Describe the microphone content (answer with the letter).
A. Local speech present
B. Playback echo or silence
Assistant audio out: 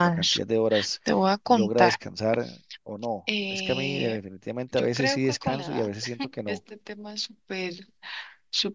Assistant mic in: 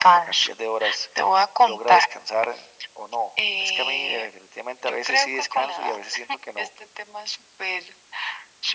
B